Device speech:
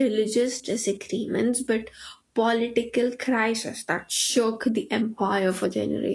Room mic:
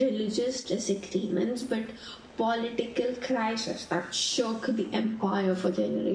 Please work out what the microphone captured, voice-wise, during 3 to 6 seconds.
echo only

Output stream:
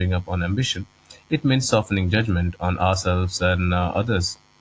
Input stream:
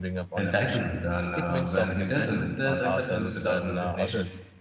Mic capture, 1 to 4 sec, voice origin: both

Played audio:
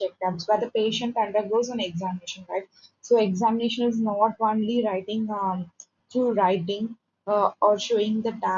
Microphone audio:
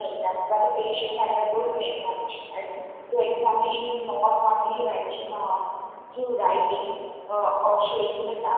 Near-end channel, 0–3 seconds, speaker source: echo only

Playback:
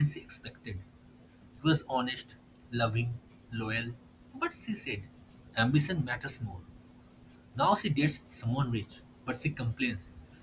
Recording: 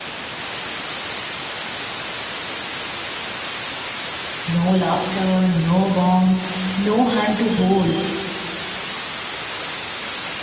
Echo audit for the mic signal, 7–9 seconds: user only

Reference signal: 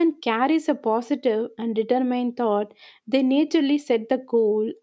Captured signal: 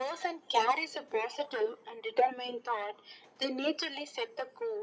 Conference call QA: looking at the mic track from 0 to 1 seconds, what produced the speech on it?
echo only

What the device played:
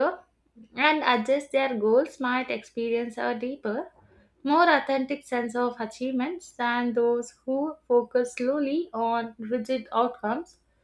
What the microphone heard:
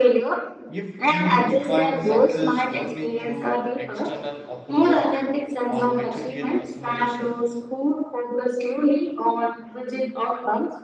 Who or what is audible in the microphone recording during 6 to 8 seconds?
both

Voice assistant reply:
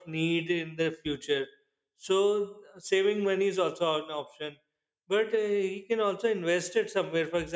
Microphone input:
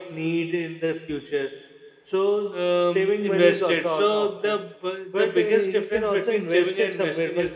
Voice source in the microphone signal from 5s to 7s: both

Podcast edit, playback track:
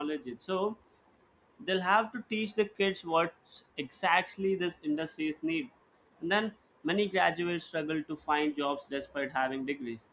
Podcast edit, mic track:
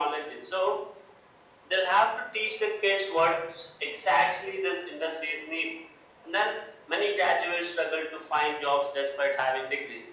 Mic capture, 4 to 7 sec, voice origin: echo only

